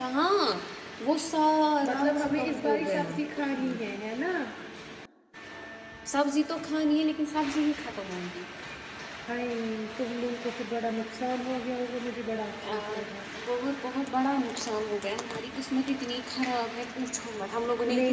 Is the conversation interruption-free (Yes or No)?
No